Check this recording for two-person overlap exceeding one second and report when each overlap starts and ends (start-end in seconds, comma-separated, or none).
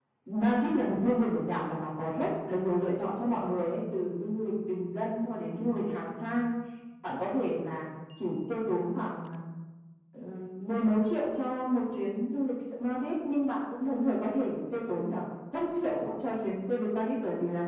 none